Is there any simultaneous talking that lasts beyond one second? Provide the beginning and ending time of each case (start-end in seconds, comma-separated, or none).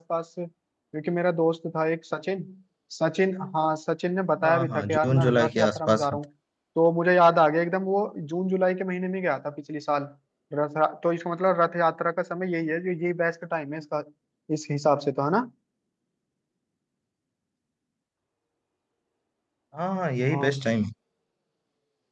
4.4-6.2